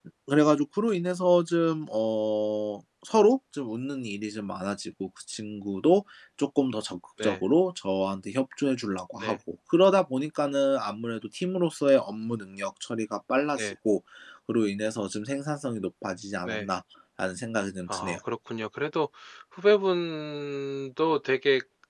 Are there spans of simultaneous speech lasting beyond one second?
No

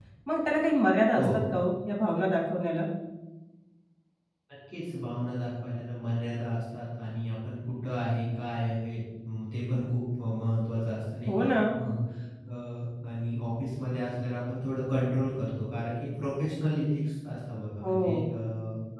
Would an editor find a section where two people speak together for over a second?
No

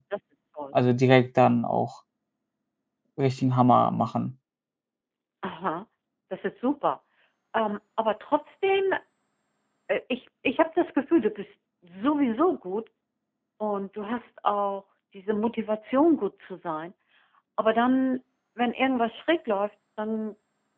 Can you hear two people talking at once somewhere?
No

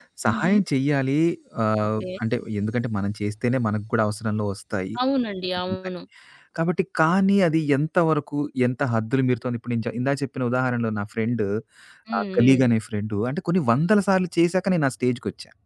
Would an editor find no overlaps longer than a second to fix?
Yes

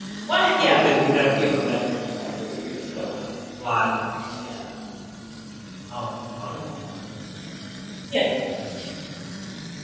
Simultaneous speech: Yes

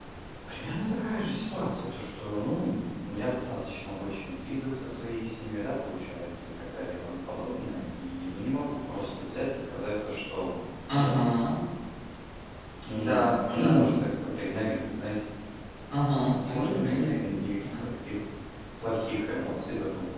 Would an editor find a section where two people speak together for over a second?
Yes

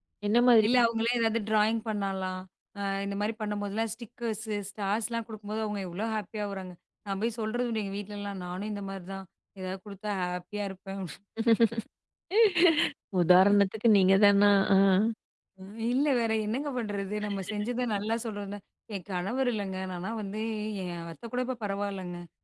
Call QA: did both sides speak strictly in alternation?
Yes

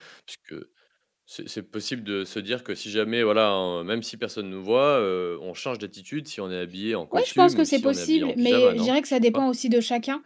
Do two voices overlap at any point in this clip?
Yes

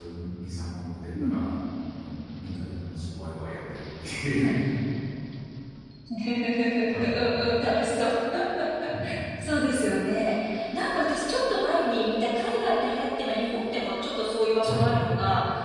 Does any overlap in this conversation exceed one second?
No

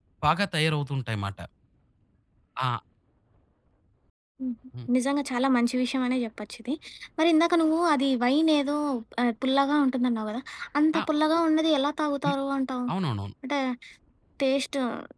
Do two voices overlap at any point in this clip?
No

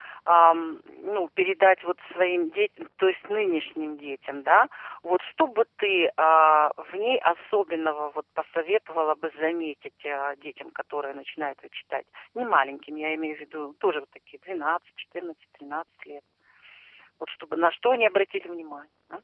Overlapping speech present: No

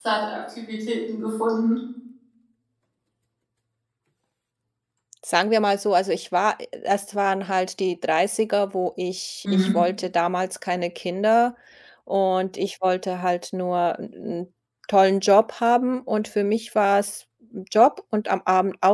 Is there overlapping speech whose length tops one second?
No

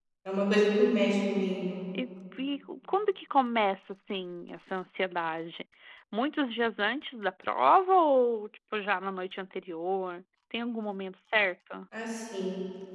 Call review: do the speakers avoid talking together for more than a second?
Yes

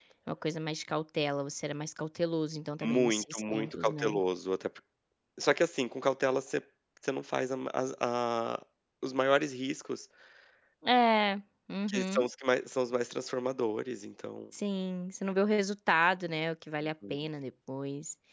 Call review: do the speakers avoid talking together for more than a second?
No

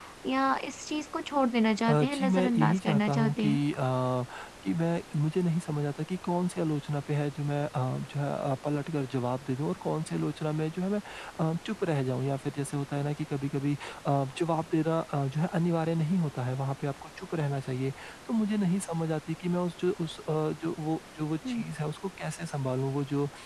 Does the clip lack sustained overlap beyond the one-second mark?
No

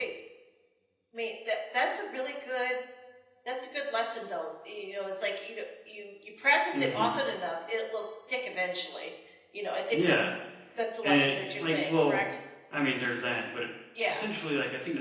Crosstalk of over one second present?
Yes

